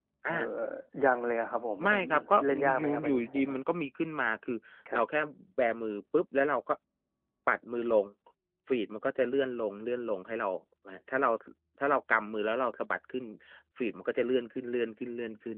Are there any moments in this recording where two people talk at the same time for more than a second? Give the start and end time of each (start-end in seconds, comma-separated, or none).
1.8-3.6